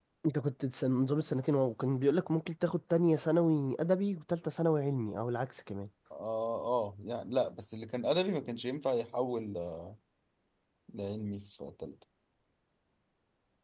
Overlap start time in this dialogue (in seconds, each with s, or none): none